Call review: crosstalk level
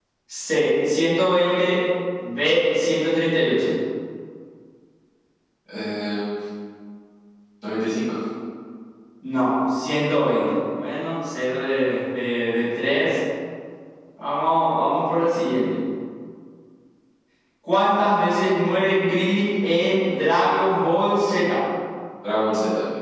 none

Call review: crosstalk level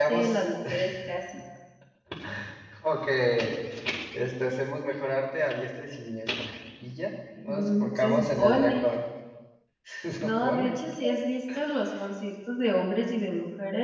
present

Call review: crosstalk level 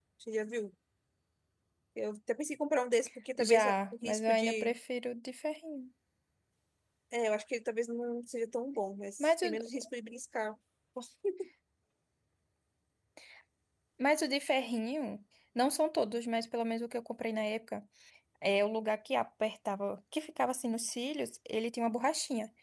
present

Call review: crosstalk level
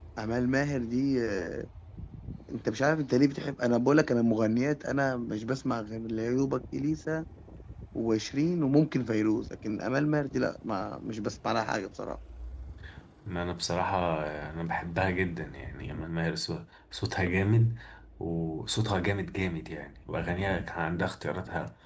none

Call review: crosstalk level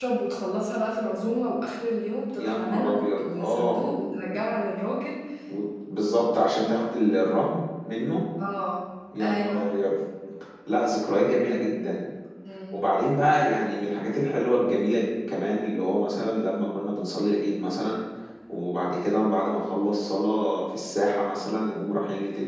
present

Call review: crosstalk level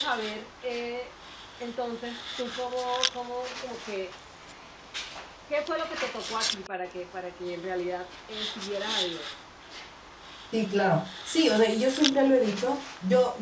none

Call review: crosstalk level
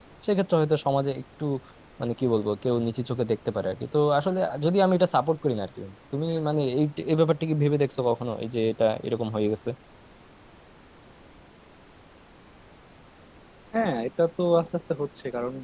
none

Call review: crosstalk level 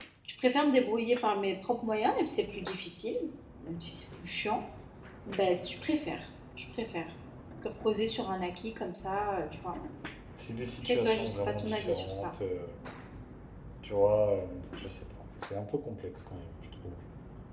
present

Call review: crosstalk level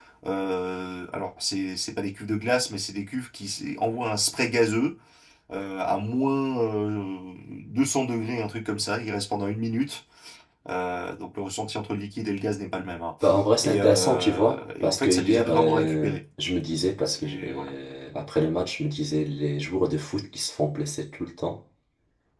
present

